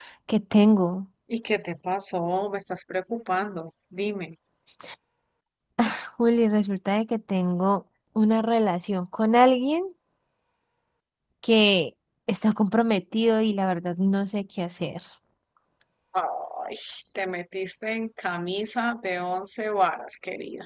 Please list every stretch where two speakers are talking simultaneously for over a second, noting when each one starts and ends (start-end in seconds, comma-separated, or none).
none